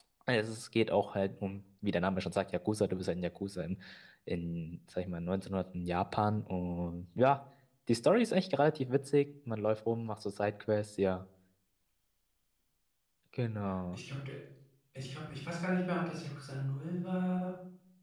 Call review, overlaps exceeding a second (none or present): none